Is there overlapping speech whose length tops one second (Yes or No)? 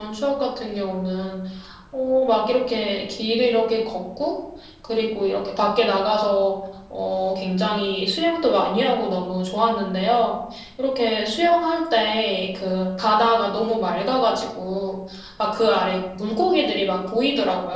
No